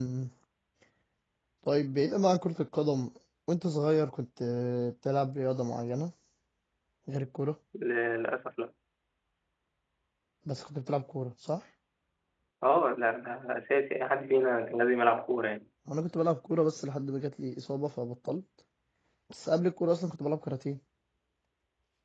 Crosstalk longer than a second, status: none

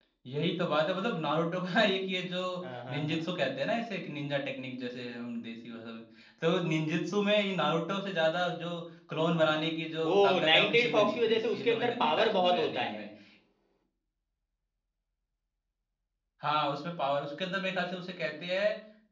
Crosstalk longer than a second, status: present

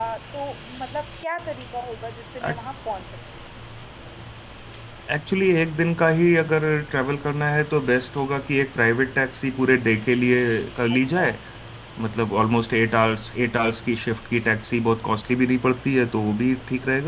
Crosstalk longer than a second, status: none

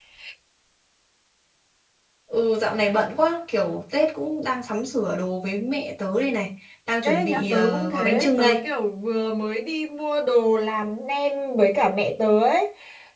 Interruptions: present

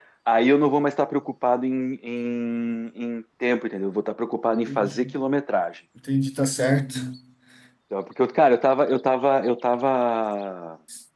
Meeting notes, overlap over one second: none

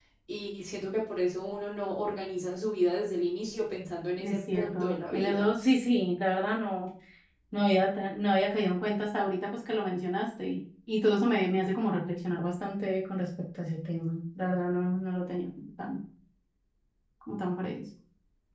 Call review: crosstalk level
present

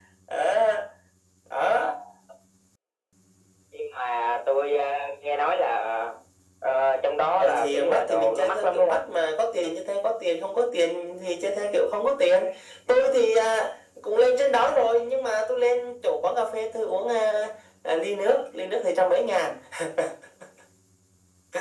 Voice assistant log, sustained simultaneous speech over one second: present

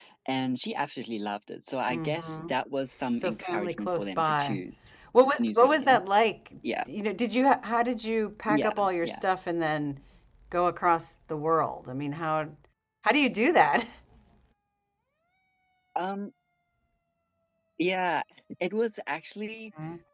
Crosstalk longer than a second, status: present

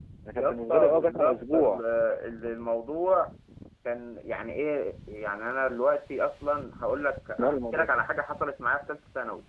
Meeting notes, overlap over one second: present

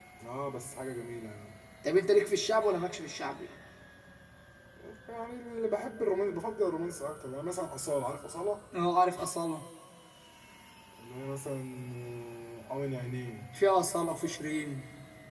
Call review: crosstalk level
none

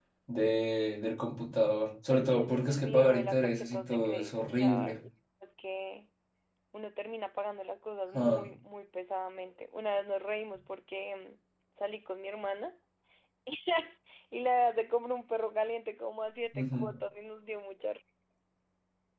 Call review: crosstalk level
present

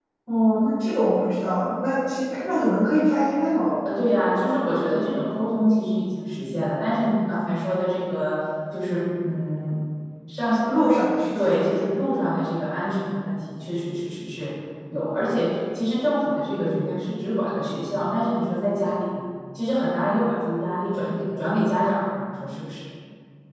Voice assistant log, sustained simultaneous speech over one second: none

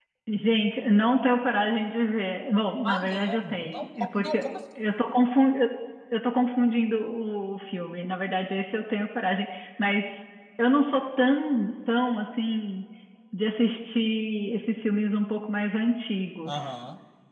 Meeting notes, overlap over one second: present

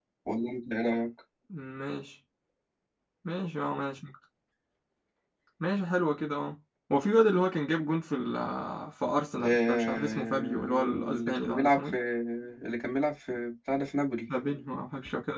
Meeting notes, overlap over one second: present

